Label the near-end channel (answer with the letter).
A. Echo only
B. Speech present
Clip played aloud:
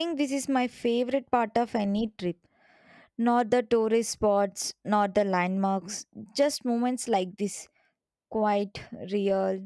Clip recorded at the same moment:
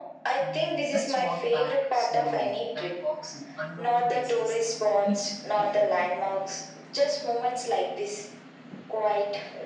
B